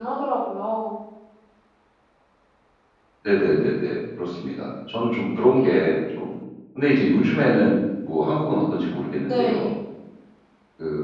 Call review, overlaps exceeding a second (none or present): none